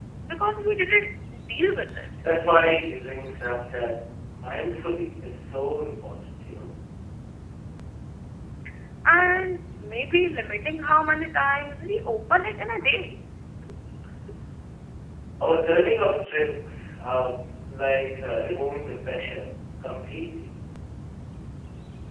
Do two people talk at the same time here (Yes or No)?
No